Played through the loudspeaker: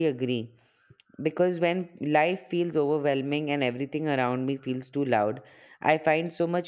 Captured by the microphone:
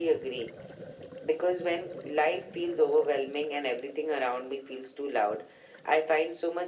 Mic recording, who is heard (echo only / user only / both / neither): echo only